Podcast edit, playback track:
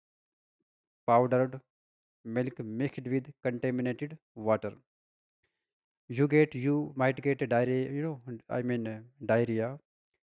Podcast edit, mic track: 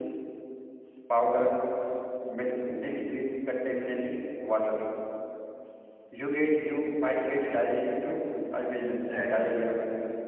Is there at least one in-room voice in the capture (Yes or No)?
Yes